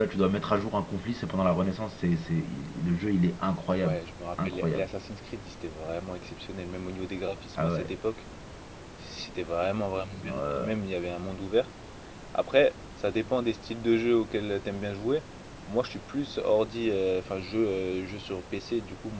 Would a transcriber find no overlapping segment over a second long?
Yes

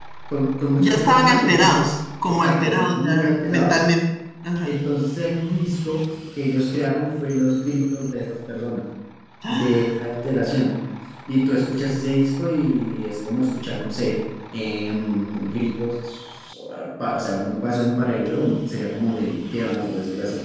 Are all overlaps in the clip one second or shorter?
No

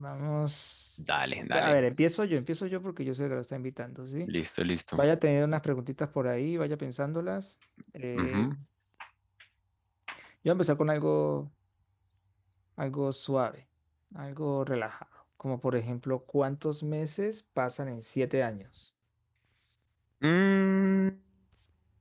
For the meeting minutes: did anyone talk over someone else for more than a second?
No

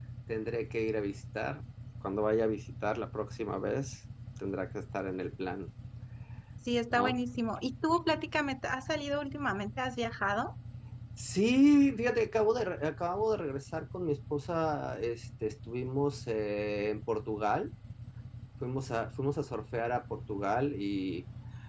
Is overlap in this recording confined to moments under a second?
Yes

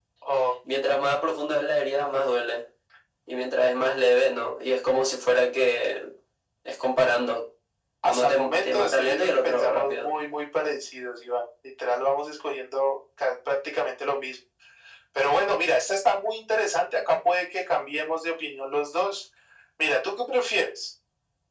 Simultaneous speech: Yes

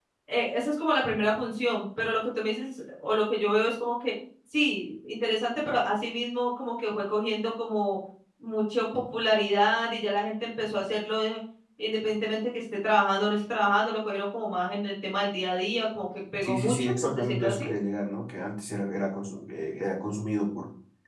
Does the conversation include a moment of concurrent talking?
Yes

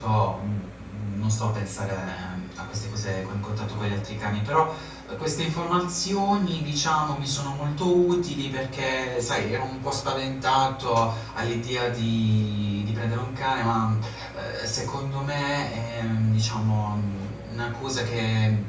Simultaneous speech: No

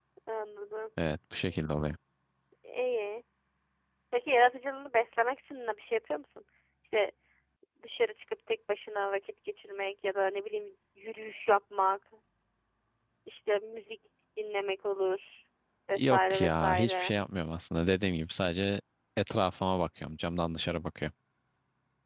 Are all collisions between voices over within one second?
No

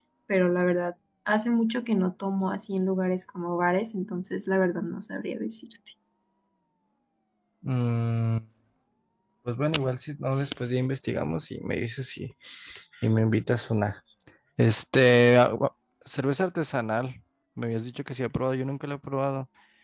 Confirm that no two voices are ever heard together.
Yes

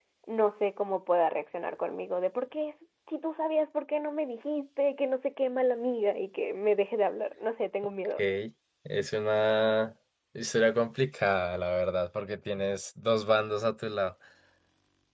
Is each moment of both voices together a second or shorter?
Yes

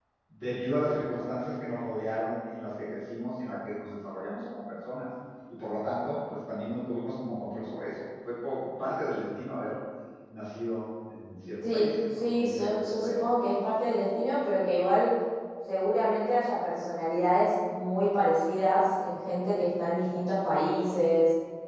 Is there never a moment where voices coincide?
No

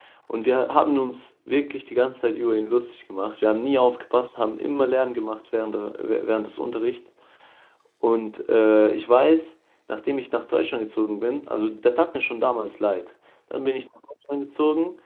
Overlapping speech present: No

